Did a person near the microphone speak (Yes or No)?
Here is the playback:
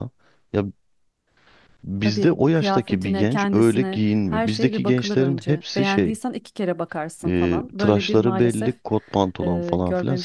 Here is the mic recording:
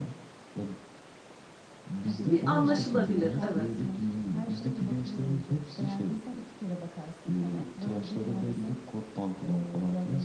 Yes